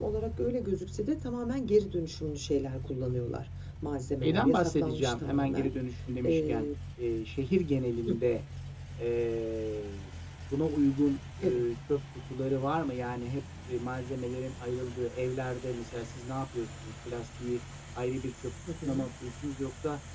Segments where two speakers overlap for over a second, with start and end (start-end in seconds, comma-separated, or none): 4.2-5.7